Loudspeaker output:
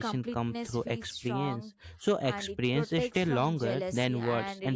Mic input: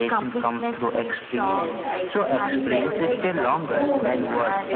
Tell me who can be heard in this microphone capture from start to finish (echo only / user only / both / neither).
both